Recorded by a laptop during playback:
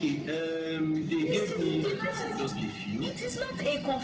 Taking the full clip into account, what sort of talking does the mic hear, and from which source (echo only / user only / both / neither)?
both